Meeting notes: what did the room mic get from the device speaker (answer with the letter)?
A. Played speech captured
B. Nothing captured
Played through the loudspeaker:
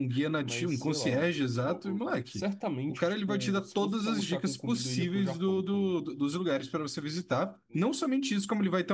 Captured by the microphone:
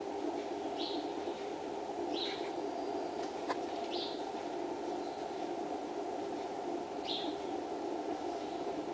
B